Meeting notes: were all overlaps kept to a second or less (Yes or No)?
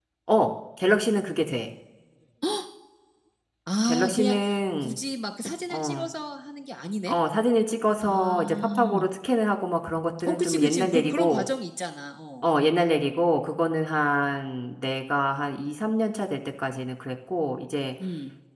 No